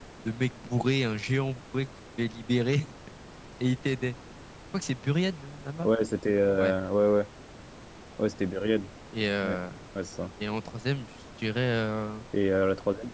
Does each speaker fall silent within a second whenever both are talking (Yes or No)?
Yes